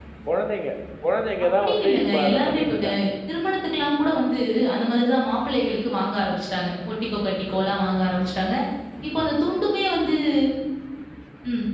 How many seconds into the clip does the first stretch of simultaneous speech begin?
1.6 s

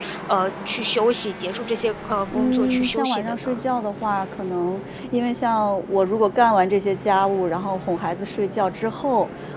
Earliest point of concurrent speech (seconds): 2.3 s

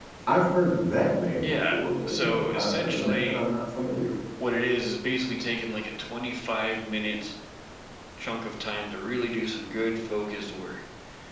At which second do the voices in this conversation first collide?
1.4 s

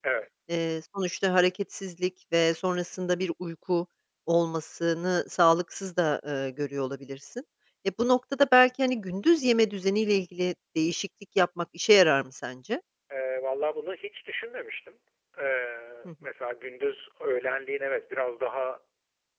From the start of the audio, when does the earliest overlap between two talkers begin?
none

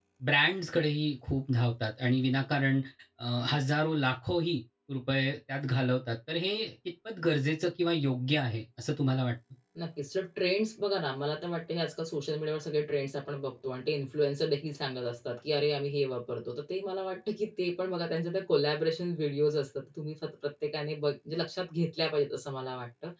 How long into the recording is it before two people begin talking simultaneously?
none

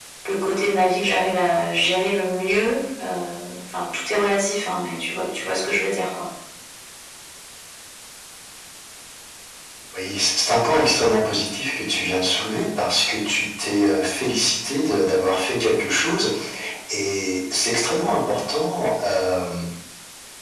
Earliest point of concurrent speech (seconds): none

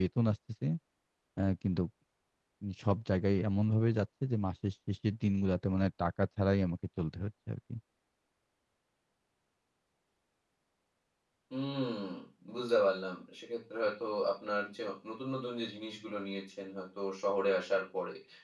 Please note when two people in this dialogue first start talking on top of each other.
none

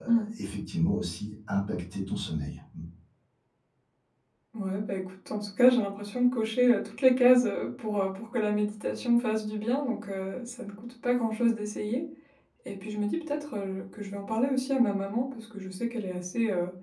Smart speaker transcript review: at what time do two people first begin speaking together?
none

